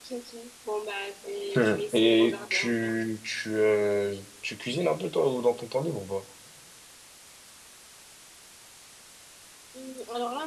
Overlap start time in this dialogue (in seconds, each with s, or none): 1.5 s